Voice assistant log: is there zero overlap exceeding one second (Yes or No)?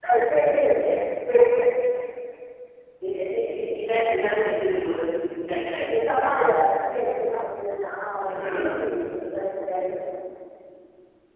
Yes